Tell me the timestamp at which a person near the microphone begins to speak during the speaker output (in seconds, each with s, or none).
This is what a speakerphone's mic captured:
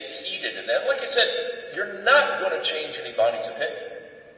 none